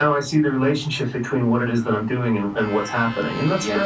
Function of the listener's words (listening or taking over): taking over